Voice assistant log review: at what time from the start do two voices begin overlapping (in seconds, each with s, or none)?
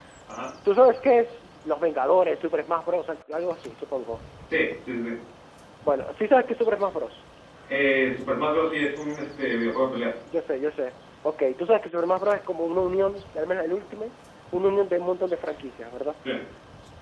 none